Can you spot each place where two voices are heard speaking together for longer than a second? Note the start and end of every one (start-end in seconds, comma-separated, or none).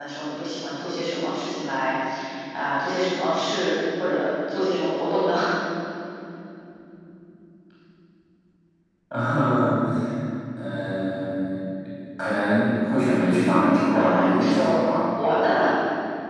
13.1-14.8